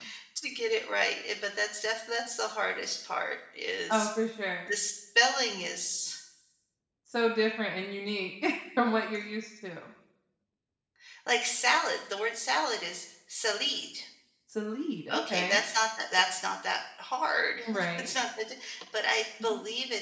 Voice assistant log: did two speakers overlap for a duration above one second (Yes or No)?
No